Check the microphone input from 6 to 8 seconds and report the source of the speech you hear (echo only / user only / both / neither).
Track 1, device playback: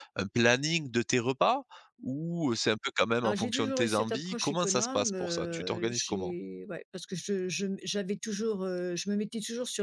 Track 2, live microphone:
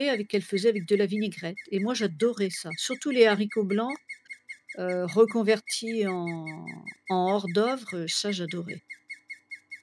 user only